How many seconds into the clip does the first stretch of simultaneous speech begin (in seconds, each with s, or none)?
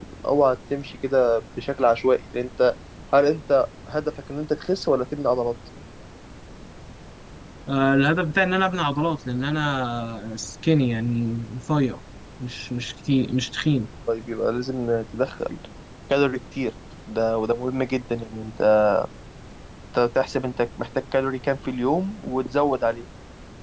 none